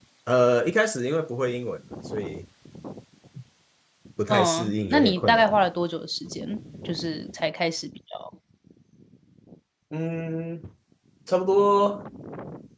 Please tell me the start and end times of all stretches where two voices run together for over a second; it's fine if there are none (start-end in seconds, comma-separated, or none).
4.3-5.6